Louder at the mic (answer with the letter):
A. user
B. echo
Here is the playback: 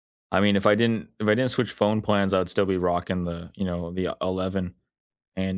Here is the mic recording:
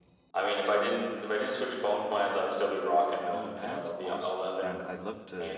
B